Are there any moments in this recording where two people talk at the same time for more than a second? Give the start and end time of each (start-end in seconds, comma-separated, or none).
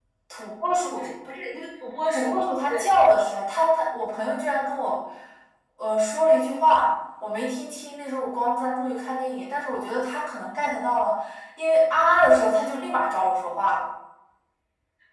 2.1-3.4